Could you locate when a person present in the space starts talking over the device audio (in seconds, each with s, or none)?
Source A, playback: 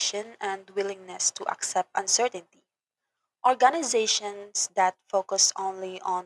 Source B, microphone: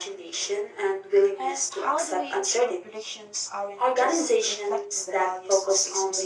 1.4 s